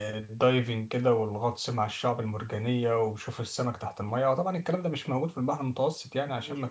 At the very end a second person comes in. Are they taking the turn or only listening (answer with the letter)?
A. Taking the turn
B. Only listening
B